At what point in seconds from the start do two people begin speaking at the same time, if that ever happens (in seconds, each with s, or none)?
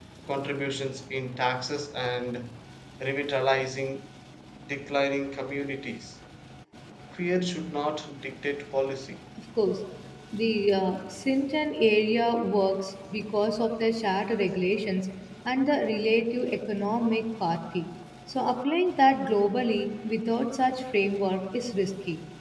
none